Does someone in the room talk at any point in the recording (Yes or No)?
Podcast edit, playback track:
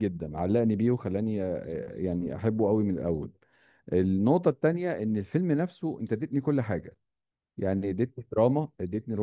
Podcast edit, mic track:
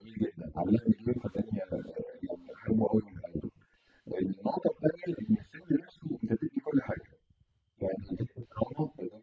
No